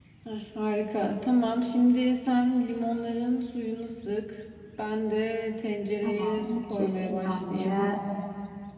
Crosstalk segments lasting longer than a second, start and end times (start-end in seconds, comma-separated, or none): 6.0-7.9